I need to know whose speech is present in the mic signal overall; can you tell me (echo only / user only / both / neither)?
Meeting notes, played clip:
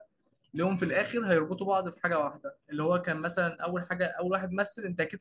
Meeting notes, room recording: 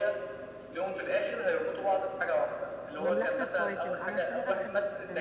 both